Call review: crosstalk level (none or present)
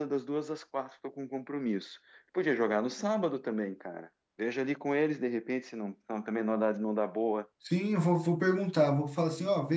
none